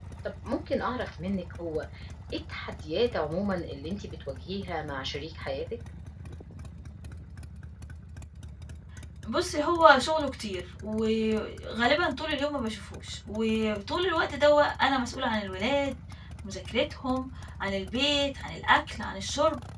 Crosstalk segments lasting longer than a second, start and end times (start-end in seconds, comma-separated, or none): none